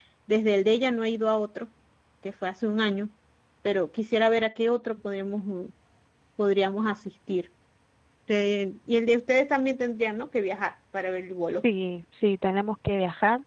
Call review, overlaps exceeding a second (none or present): none